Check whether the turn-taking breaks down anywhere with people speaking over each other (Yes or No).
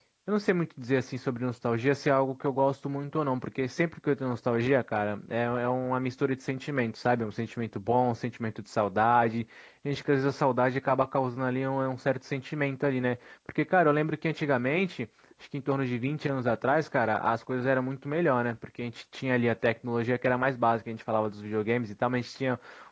No